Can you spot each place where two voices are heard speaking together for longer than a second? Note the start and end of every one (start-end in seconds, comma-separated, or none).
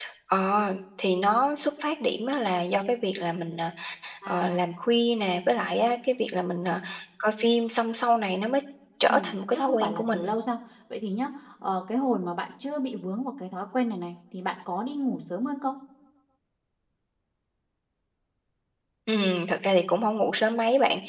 9.1-10.3